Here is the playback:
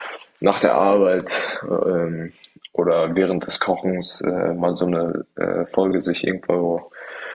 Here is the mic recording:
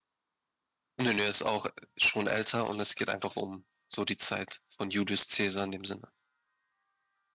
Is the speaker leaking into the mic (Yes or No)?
No